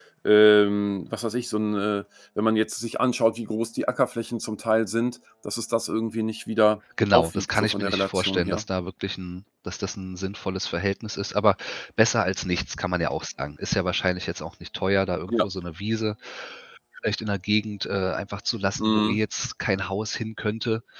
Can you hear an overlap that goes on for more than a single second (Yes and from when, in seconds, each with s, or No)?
Yes, from 7.1 s